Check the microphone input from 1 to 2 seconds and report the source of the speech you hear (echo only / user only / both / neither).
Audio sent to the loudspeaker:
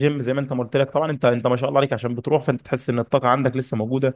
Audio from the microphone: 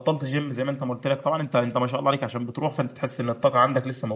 echo only